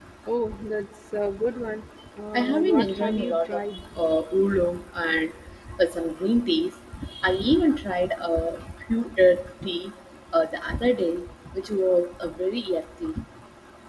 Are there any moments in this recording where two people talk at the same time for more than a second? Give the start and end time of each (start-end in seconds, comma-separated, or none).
2.3-3.8